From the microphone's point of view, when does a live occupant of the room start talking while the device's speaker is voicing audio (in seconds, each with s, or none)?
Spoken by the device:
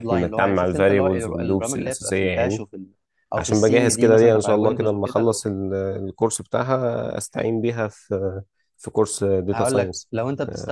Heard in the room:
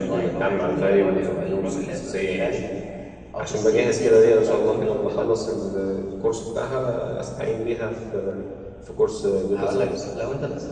none